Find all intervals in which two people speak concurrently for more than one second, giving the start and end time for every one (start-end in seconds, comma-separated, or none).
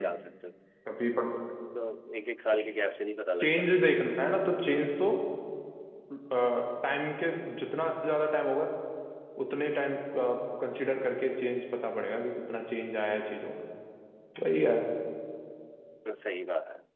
none